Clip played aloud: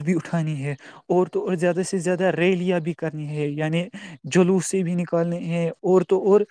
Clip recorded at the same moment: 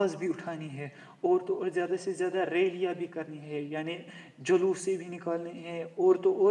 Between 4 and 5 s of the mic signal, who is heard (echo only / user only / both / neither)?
echo only